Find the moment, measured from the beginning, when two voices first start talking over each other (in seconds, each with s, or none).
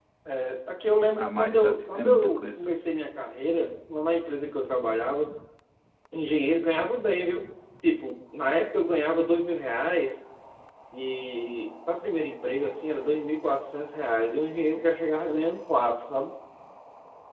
1.2 s